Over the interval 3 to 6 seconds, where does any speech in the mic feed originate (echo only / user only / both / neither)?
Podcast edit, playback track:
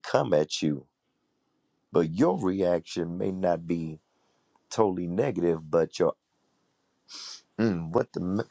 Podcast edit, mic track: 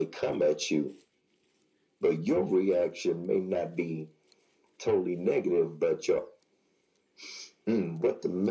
echo only